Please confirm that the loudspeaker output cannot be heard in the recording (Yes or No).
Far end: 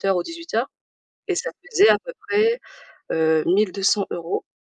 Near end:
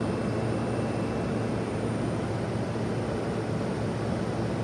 Yes